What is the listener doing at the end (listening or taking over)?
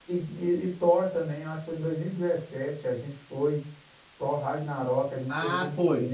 taking over